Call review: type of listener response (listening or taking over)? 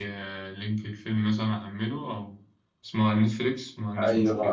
taking over